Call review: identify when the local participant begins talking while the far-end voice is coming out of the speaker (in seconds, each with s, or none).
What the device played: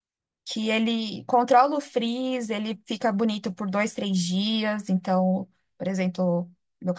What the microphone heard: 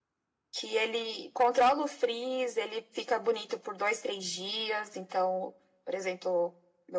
none